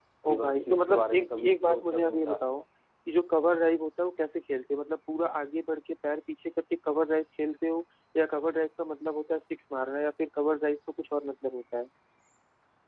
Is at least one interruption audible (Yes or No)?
Yes